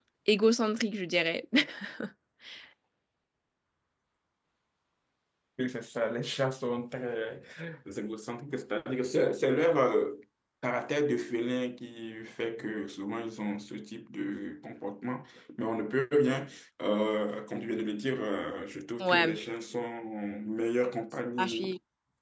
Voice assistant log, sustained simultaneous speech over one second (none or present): none